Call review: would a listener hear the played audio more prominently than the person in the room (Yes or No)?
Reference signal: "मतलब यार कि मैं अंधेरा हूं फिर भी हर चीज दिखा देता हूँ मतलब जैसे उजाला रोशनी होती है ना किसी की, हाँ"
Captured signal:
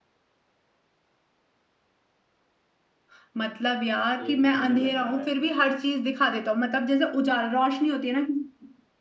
Yes